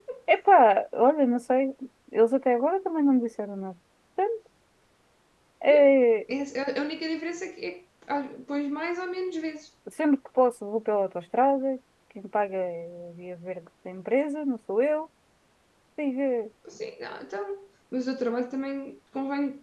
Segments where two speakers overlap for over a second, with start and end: none

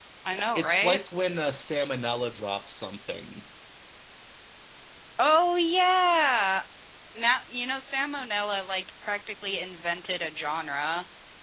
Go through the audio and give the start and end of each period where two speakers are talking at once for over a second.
none

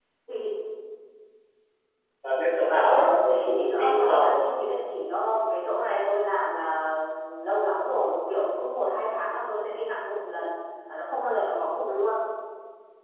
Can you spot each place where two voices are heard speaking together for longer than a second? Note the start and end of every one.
2.8-4.4

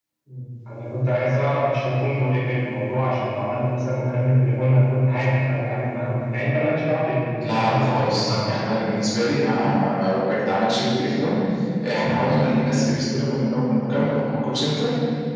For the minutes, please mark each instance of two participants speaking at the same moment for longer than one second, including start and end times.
7.4-8.8

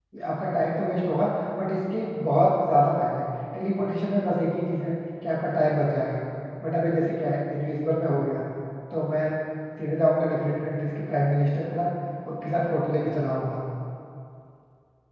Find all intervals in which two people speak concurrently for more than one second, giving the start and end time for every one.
none

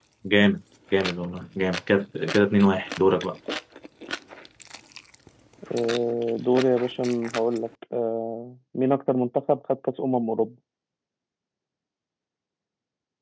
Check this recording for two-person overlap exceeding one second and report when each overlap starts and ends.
none

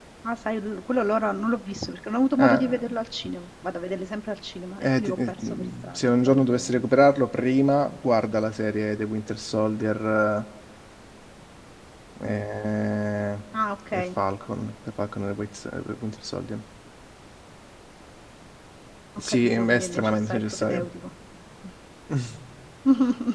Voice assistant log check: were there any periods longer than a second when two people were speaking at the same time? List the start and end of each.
4.8-6.8, 19.3-20.9

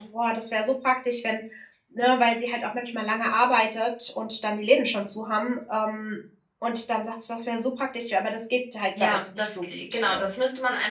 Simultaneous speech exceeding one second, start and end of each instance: 9.0-10.2

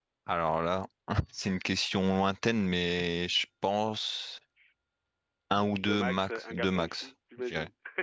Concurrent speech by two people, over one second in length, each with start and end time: 5.8-7.1

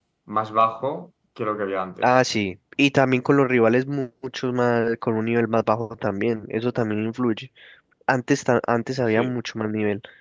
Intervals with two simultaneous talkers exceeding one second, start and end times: none

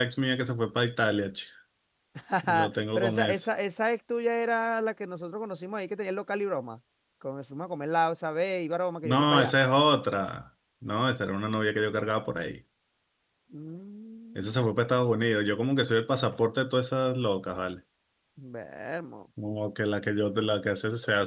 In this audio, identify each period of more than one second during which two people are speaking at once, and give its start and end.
none

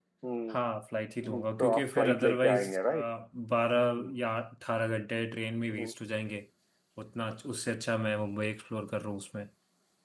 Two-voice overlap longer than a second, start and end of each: 1.2-3.1

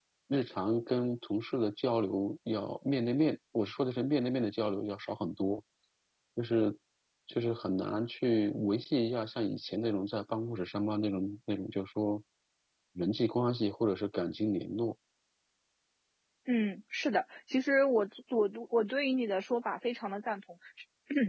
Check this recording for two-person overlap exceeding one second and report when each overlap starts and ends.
none

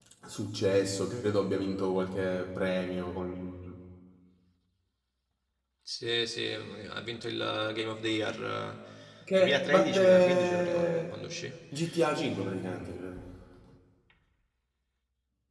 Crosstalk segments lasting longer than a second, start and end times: 9.4-11.2

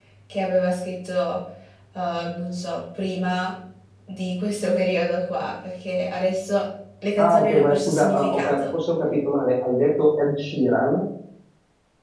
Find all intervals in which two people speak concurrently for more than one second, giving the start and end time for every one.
7.2-8.6

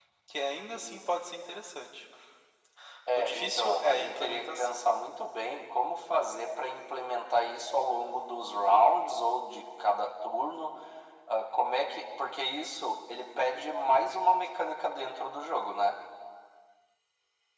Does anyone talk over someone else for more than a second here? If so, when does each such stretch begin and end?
3.1-4.8

